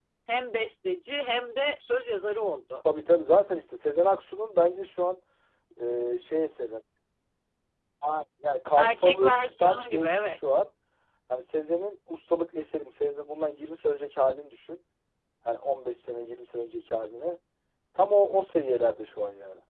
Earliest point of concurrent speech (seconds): 8.8 s

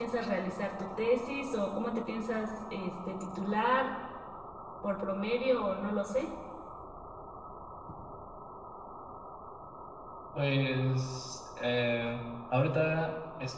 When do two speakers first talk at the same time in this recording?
none

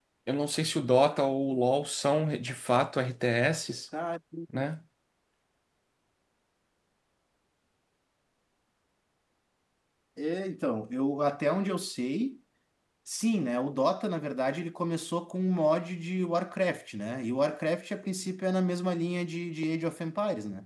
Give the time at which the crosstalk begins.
none

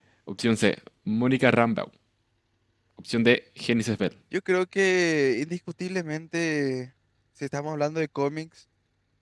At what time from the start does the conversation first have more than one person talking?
none

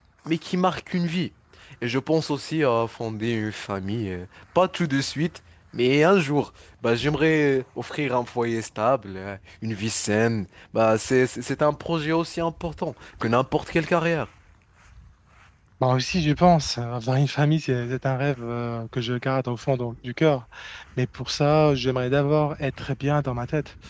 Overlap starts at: none

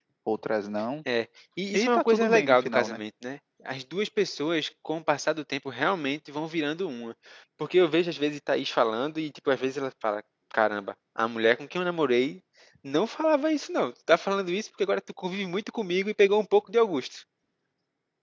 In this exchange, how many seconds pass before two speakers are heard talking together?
1.7 s

